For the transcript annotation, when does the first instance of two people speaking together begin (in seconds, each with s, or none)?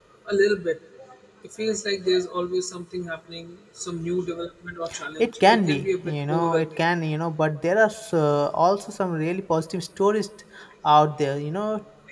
5.2 s